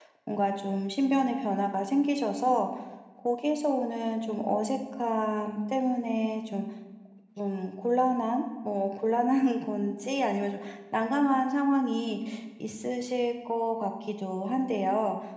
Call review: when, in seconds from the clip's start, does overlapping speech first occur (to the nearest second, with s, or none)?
none